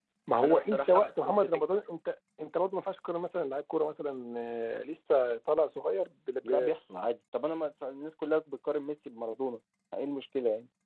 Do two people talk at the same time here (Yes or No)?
Yes